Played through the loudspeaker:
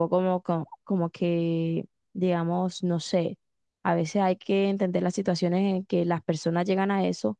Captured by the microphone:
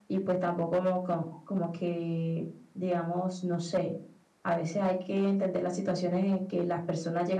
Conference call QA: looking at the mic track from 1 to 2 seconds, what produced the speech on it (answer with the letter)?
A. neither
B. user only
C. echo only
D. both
C